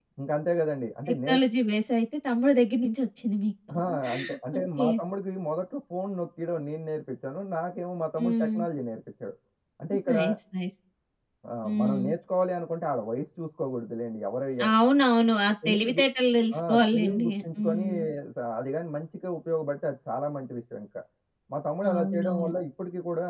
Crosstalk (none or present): present